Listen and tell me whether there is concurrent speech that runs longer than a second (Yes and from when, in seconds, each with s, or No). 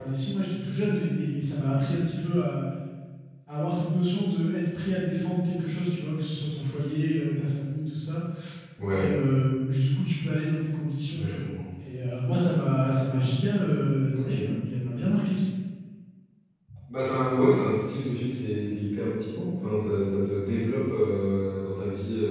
No